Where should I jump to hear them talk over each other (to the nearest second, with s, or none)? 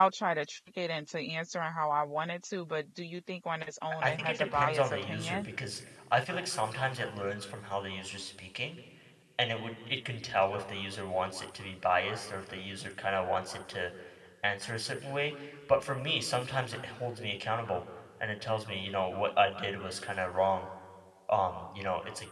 4 s